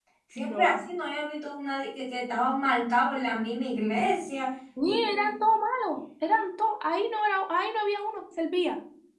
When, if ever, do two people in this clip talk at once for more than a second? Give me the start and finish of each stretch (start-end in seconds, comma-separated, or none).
none